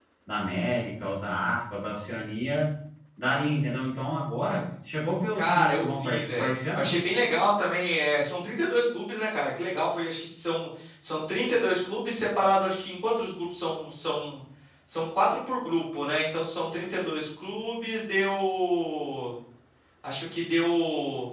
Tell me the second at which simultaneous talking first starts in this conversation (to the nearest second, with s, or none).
5 s